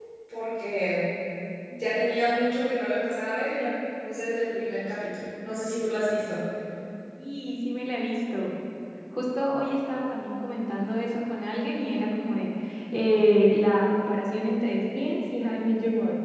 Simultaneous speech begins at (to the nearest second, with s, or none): none